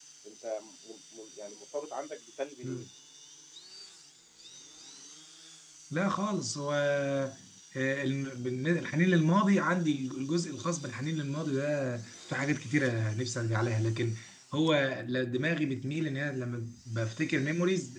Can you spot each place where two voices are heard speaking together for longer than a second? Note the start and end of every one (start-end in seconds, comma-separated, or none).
none